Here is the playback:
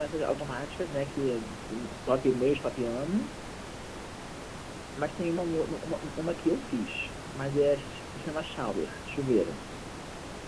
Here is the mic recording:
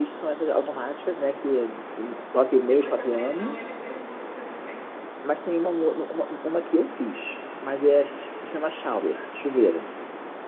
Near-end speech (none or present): present